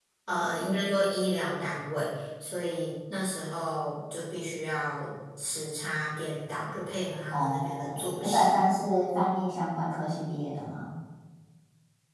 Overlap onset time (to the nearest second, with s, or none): 7 s